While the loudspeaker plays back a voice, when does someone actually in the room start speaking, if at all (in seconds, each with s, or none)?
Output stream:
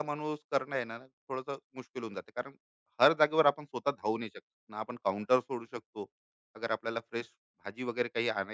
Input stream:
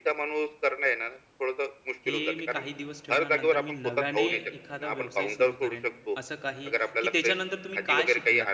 2.1 s